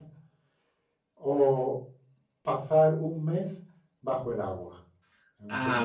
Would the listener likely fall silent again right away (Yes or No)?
No